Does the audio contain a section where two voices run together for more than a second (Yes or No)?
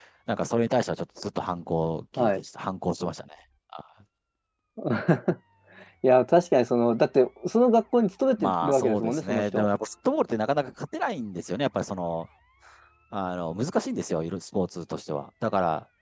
Yes